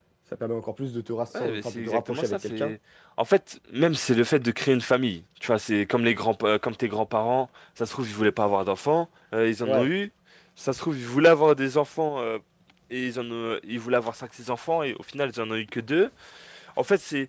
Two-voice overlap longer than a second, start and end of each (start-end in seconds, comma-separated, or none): 1.4-2.7